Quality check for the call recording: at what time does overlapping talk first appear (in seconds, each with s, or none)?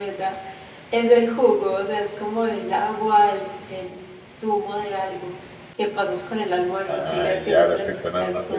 6.9 s